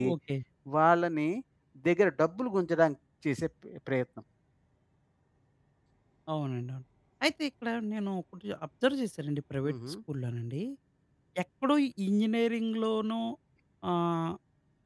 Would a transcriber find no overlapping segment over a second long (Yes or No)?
Yes